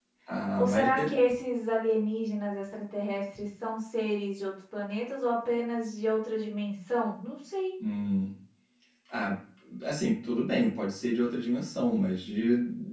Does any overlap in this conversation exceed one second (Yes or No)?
No